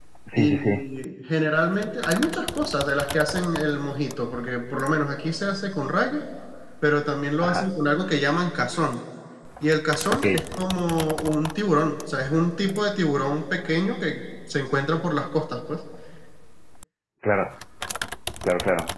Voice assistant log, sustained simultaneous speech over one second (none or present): none